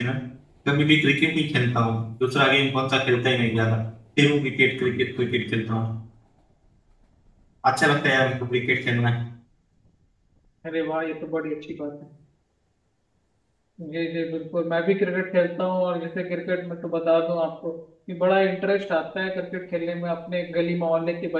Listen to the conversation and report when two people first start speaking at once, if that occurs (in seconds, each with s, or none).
none